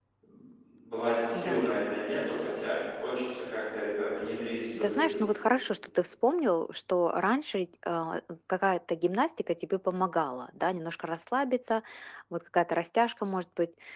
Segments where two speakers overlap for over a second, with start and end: none

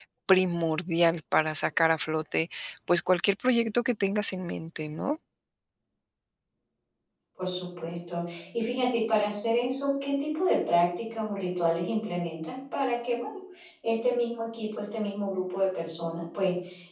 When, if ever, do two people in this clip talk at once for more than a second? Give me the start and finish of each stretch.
none

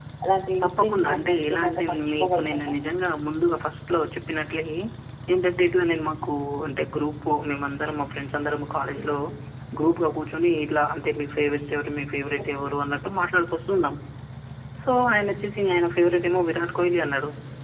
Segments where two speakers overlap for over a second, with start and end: 0.6-2.7

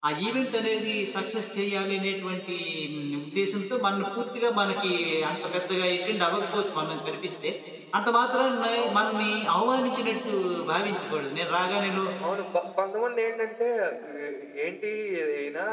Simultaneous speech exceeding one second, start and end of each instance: none

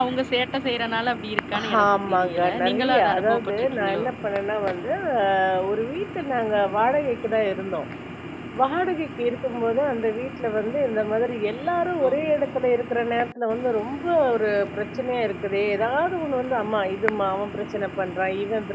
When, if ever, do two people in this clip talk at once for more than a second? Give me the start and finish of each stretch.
1.8-4.1

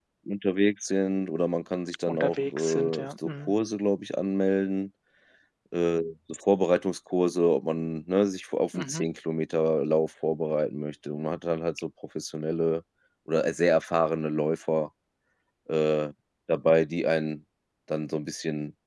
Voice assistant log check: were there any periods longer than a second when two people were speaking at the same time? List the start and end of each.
2.1-3.5

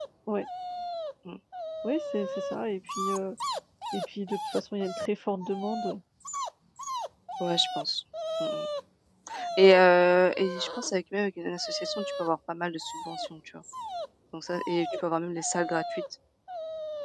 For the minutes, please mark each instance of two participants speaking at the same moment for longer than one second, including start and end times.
none

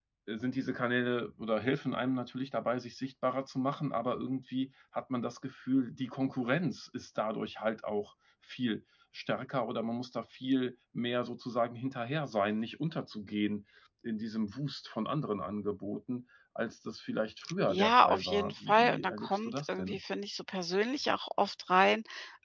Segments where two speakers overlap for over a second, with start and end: 17.7-20.0

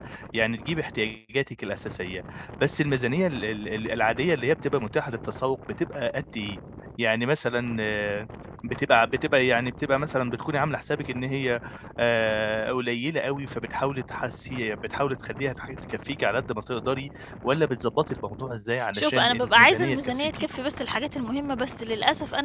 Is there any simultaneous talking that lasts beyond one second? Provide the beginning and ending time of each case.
18.9-20.5

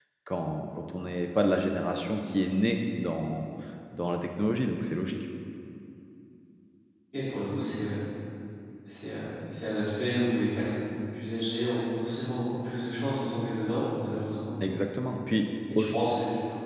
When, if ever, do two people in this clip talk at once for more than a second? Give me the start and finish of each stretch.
none

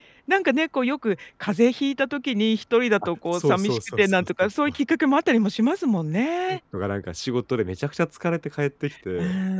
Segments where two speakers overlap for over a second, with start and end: 3.0-4.8

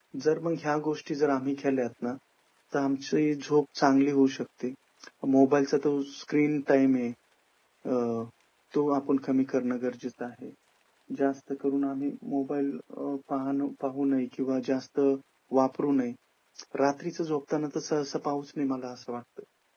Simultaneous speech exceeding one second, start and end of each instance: none

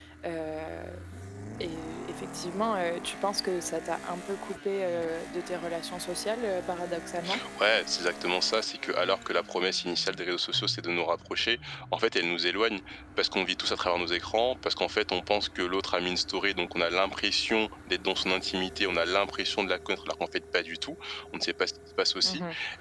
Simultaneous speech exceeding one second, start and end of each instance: none

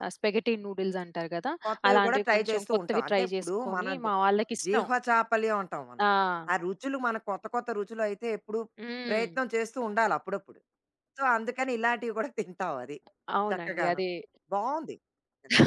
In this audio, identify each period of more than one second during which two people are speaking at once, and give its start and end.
1.9-4.1

